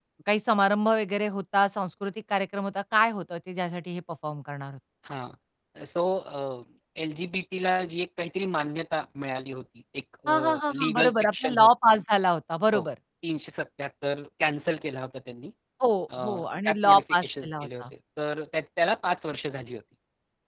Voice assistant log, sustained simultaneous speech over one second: present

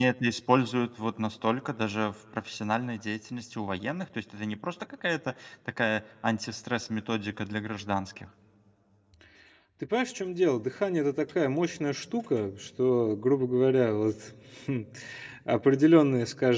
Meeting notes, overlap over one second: none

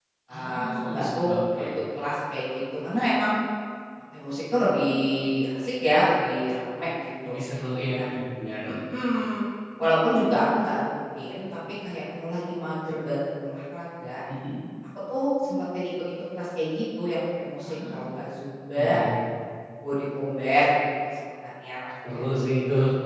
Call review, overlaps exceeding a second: present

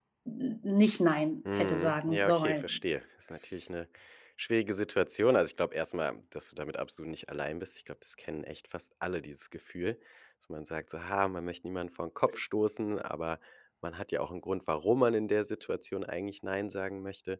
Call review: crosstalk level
present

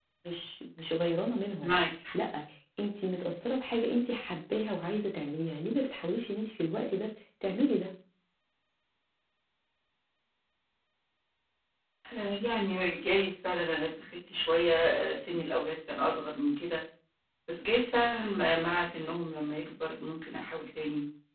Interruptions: none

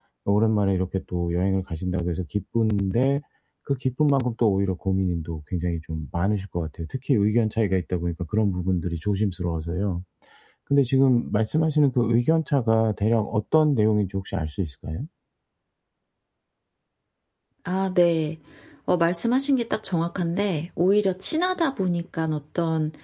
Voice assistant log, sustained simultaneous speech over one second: none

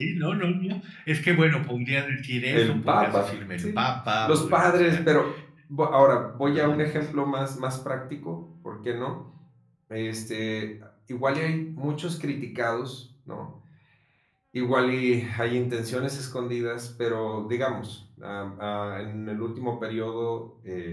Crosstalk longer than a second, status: present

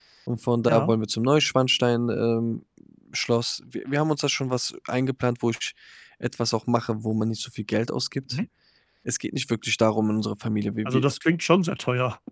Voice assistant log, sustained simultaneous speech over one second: none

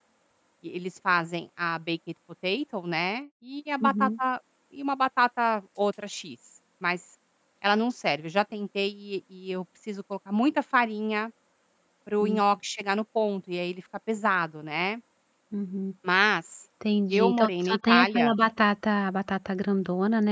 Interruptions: present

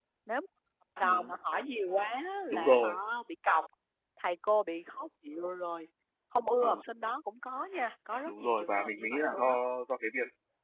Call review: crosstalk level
present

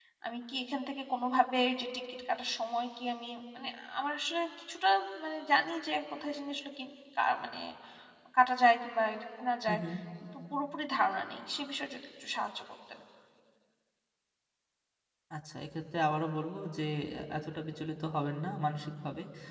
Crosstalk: none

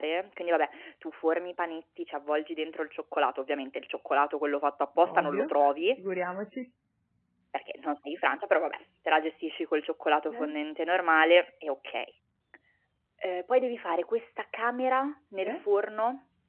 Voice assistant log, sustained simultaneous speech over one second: none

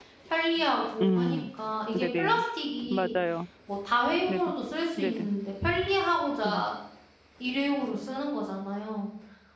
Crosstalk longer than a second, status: none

